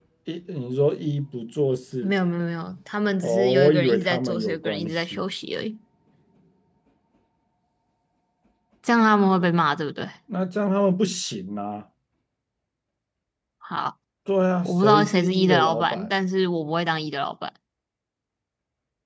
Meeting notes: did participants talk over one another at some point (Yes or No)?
Yes